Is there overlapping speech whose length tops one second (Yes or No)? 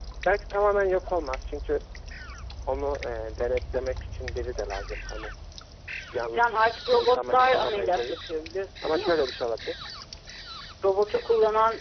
Yes